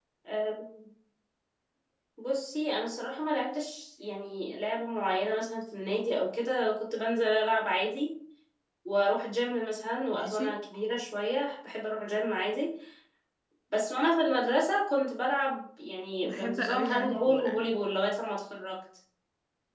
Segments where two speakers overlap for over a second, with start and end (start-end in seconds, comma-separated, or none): 16.2-17.7